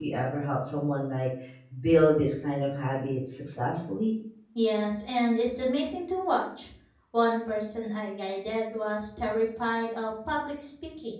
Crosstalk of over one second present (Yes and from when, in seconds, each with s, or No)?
No